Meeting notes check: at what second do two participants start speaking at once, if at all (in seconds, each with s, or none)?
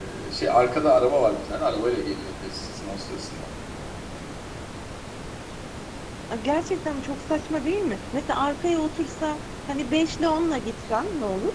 none